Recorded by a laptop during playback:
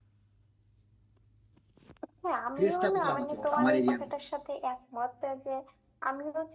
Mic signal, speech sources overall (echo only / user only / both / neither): both